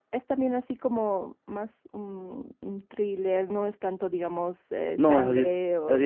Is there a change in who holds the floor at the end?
Yes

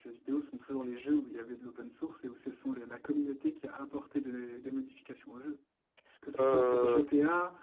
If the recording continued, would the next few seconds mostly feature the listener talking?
No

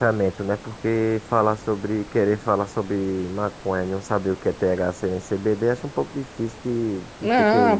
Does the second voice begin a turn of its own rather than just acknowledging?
Yes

